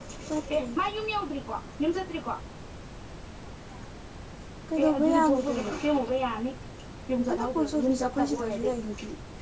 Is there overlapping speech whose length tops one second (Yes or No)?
Yes